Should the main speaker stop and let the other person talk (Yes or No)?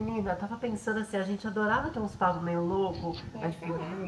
No